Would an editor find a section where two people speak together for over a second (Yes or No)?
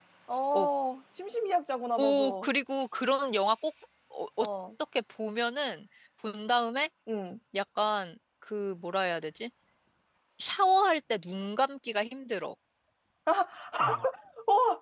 No